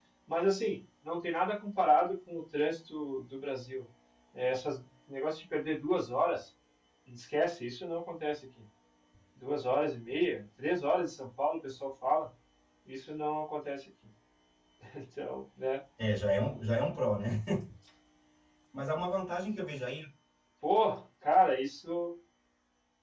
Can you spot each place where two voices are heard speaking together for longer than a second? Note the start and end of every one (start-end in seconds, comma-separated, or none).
none